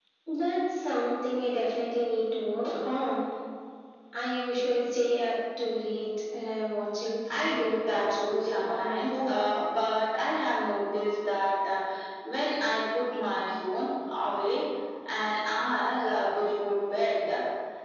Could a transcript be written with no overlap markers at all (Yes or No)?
No